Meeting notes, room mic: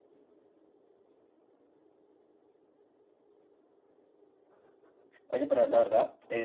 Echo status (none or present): none